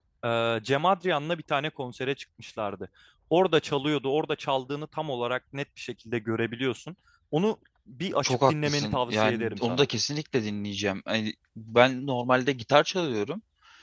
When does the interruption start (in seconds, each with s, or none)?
8.2 s